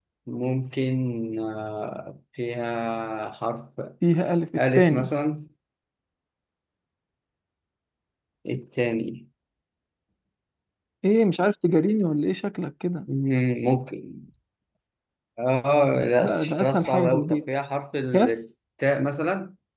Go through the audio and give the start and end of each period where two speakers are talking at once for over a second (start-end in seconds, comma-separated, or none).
16.2-17.5